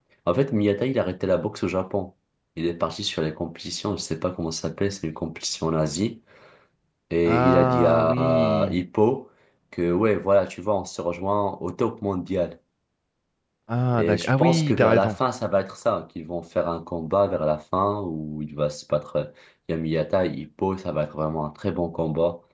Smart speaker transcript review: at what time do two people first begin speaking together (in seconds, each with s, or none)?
7.2 s